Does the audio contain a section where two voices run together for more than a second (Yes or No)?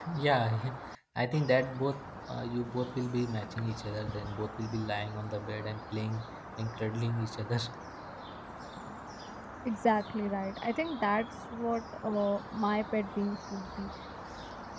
No